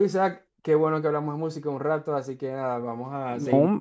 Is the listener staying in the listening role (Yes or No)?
Yes